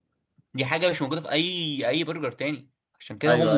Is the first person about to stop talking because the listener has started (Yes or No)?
Yes